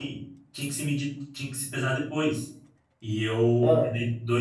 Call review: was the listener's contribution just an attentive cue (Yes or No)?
Yes